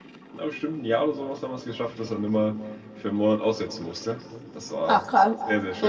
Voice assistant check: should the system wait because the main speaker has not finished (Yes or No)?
No